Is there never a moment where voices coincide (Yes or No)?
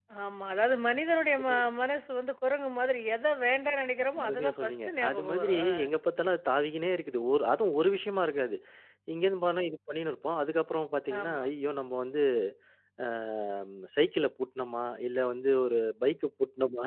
No